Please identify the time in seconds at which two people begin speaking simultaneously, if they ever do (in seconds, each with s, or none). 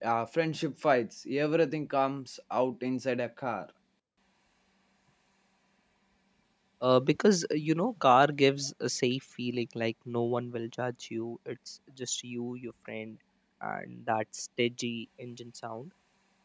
none